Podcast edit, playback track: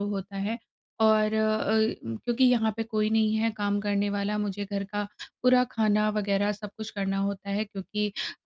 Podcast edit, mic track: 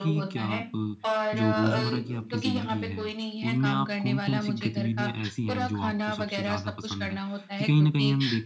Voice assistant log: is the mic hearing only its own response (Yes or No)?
No